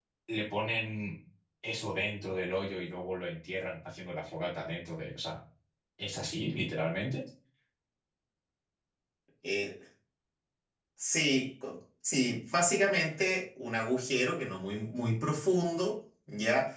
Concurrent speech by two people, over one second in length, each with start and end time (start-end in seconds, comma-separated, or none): none